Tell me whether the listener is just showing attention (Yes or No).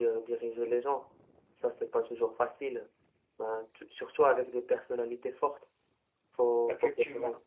Yes